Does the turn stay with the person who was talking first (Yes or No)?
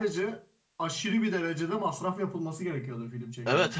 No